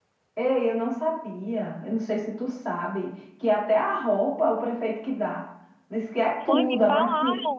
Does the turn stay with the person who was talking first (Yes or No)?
No